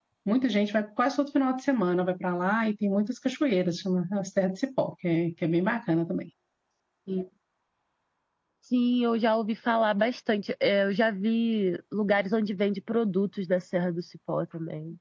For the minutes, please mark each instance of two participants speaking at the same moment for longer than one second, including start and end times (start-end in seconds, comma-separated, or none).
none